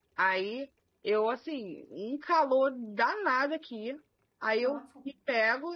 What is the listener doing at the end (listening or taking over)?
listening